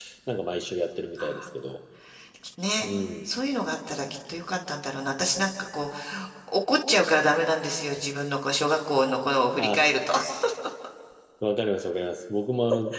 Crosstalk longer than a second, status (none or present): none